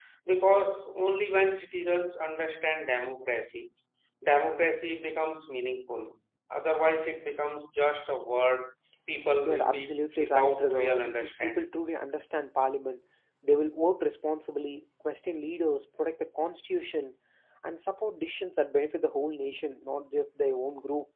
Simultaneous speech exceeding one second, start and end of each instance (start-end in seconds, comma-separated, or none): 9.4-11.7